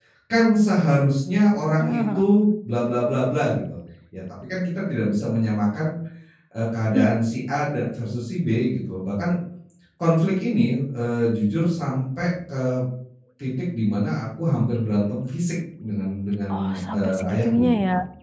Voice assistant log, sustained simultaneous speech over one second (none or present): present